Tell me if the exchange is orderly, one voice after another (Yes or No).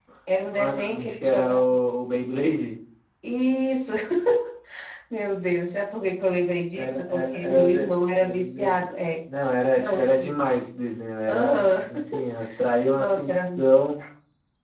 No